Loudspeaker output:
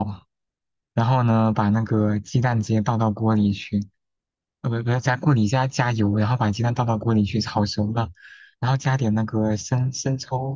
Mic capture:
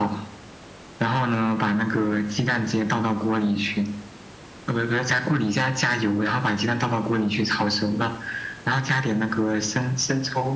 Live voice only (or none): none